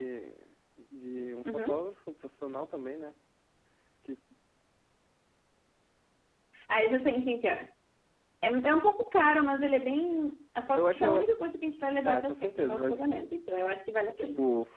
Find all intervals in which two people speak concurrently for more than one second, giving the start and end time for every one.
12.0-13.2

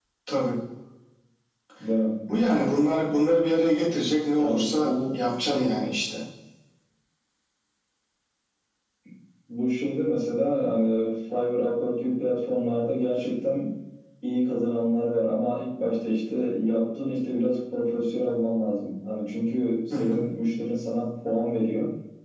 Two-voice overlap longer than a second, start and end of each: 4.4-5.6

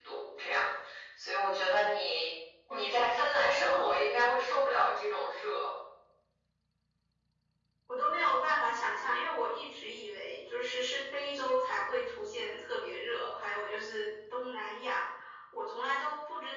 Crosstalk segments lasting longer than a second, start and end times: 2.7-4.0

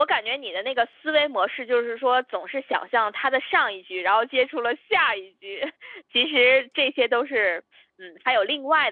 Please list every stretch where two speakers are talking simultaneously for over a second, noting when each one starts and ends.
none

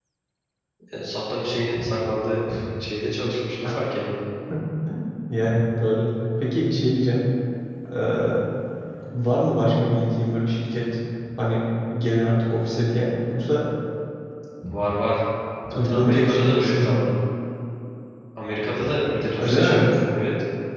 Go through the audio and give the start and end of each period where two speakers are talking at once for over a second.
15.7-17.0

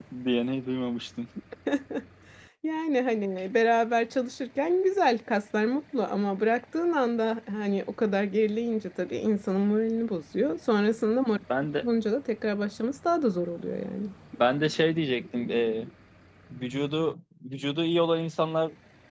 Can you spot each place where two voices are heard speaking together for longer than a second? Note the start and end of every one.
none

